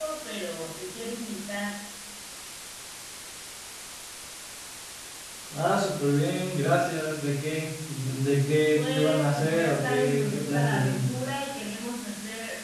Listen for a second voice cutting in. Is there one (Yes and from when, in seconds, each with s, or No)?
Yes, from 8.7 s